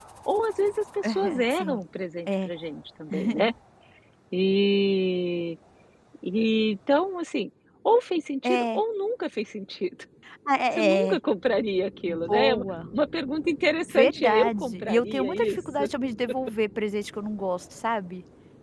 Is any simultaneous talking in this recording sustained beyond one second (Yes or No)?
Yes